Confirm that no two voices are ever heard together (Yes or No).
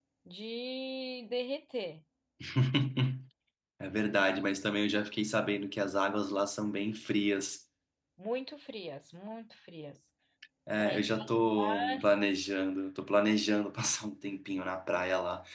No